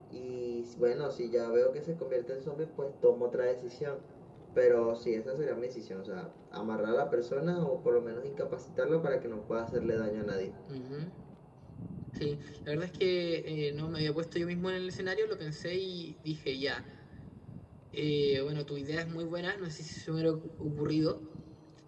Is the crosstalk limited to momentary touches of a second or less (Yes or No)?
Yes